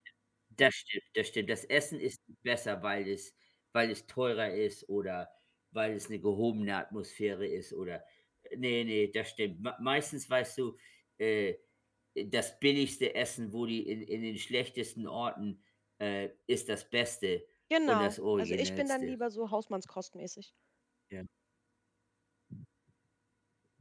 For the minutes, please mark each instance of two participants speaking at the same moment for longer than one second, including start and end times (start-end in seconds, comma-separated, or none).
17.9-19.1